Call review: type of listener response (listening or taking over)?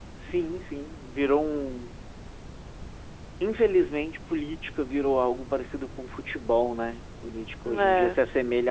listening